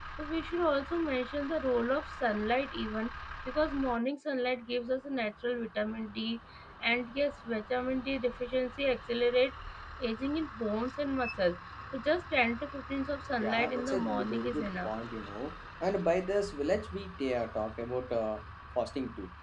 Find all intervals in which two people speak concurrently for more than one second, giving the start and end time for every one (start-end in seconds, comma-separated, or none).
13.4-14.9